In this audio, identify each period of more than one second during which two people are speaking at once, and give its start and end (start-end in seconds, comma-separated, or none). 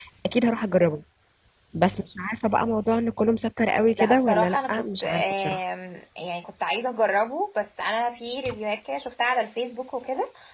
4.0-5.6